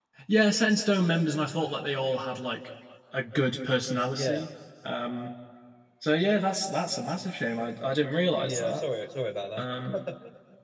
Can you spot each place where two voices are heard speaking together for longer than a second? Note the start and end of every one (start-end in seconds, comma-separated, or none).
none